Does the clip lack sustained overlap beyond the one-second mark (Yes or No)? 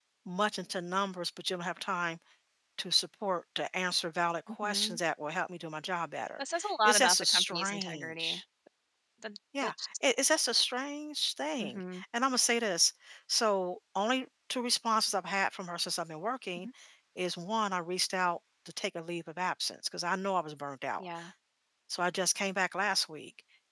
No